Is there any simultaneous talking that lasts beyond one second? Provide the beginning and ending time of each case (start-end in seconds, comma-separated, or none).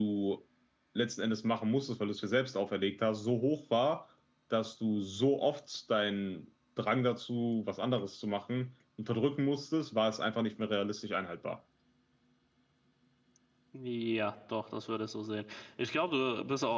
none